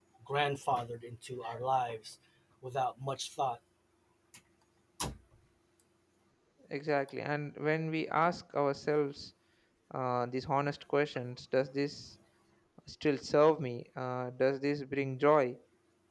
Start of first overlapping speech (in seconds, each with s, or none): none